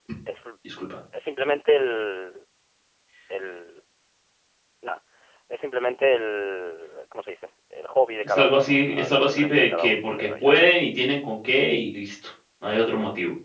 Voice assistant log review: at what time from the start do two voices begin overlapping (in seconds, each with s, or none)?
8.2 s